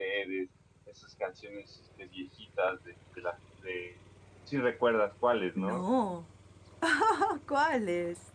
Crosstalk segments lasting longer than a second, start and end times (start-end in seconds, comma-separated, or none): none